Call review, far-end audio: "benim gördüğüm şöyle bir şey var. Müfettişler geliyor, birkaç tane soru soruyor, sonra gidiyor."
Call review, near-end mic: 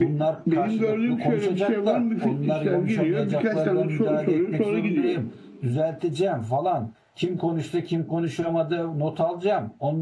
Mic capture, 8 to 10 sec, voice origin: user only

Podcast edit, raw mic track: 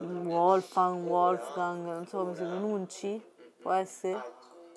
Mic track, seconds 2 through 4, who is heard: both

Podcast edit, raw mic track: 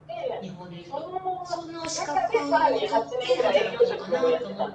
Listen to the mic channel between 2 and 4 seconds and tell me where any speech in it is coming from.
both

